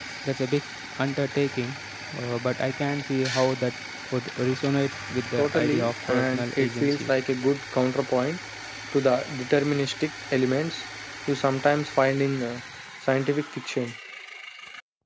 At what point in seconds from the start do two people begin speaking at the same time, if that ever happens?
5.4 s

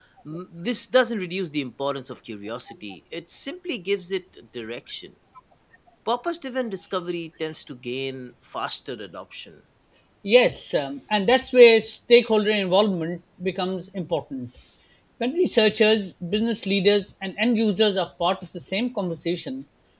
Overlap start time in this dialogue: none

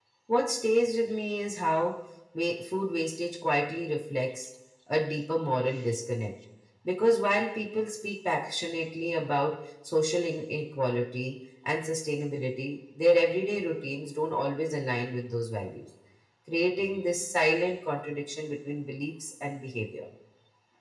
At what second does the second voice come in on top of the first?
none

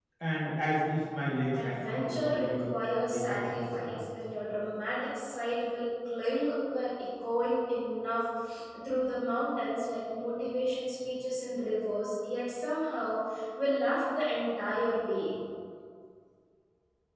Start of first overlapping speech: 1.5 s

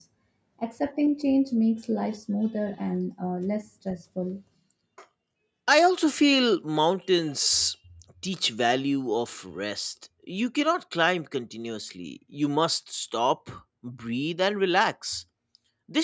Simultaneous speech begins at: none

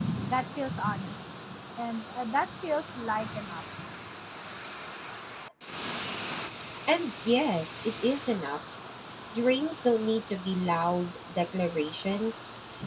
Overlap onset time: none

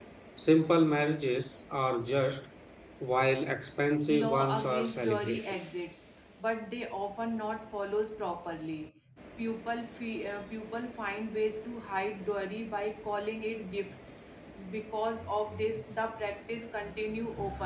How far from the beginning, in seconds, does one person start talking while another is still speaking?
4.1 s

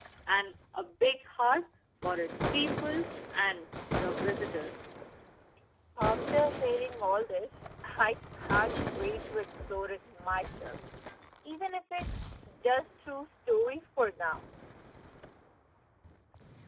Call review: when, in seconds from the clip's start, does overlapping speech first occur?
none

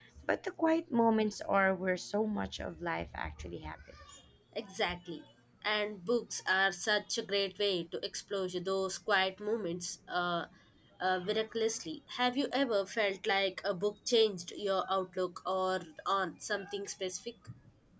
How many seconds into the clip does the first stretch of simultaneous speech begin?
none

